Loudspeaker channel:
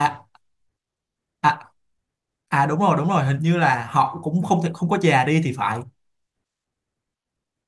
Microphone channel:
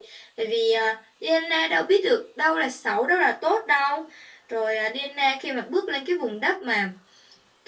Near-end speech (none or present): present